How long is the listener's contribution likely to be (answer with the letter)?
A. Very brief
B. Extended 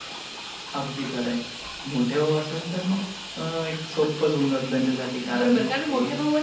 B